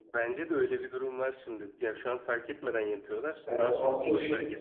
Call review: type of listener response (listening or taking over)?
taking over